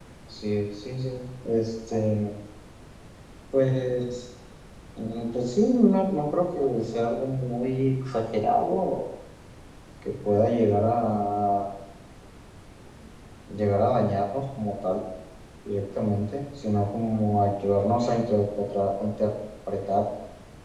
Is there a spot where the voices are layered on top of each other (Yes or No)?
No